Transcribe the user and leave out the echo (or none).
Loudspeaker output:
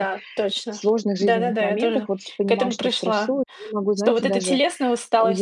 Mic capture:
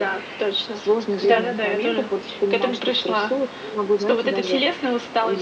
Да.